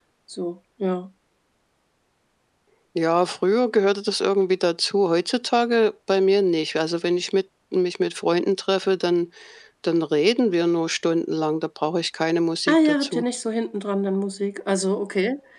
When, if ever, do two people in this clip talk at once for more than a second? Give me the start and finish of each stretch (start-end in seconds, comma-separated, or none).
none